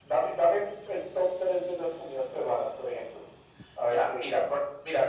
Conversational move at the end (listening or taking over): taking over